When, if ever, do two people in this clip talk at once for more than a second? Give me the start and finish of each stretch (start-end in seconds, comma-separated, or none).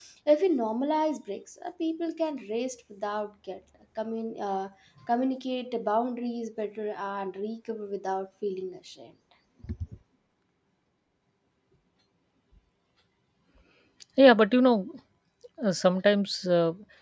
none